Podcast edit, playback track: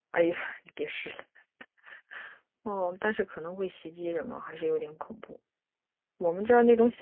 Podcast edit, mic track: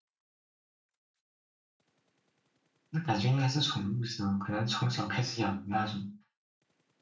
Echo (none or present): none